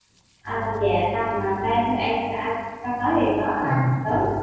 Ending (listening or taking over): listening